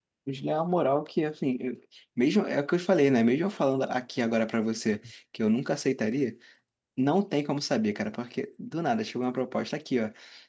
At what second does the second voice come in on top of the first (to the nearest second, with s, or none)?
none